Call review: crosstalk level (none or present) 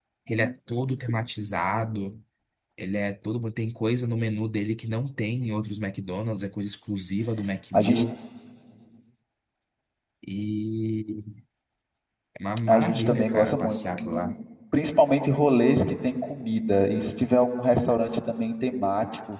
present